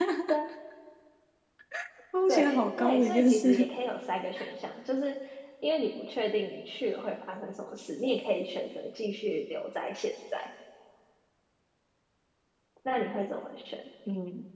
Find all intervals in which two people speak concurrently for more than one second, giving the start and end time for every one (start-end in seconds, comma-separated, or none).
2.3-3.7